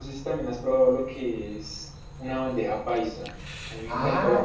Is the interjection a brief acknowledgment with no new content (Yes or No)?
No